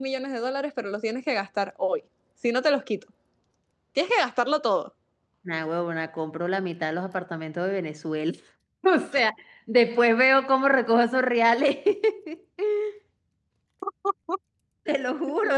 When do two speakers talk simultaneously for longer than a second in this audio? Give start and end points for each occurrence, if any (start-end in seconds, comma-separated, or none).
none